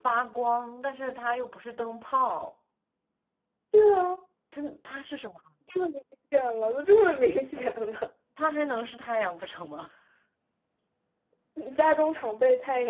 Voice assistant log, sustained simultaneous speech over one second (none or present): none